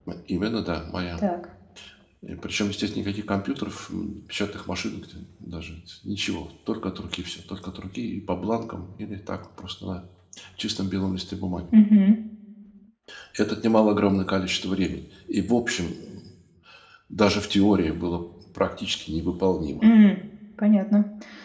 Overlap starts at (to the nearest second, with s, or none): none